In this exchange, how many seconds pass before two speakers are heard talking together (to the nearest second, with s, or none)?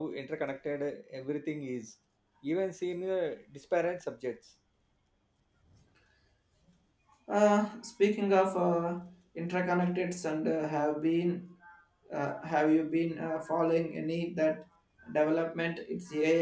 none